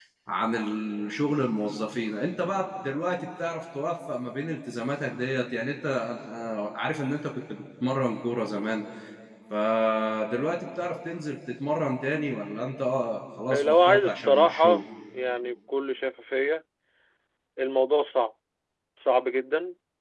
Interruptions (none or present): present